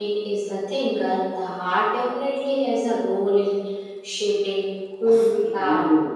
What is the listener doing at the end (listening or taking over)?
taking over